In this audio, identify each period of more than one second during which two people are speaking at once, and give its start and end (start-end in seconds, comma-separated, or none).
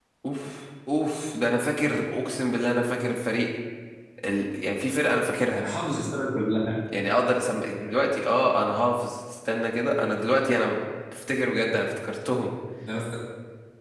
none